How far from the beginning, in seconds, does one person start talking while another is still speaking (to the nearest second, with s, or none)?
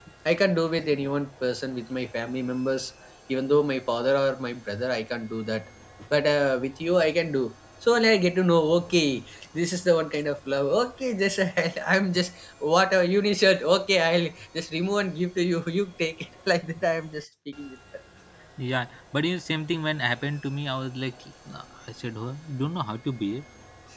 none